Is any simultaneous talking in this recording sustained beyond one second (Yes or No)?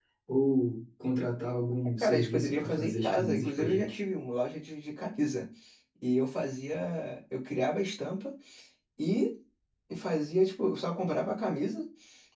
Yes